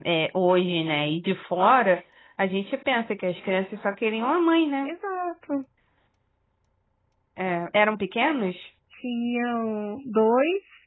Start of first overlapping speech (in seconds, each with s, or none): none